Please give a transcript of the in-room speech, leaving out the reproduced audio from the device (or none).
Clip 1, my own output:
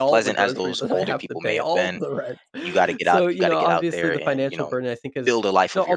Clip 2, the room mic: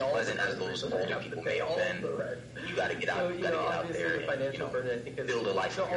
none